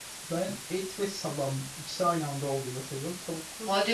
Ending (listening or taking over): taking over